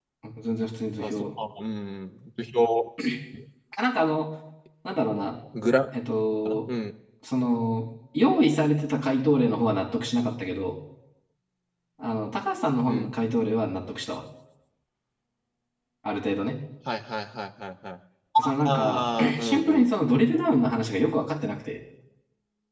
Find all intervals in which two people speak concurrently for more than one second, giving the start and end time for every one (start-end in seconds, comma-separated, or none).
18.6-19.9